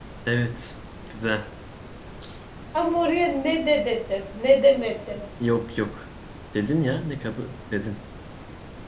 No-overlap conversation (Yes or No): Yes